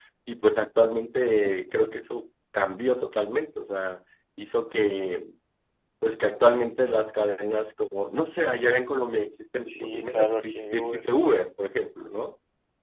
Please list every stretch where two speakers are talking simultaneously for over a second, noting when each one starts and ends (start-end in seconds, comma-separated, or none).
9.6-11.1